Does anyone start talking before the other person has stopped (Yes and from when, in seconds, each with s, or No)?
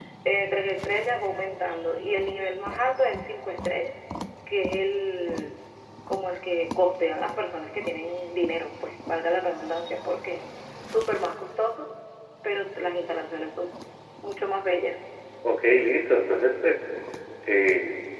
No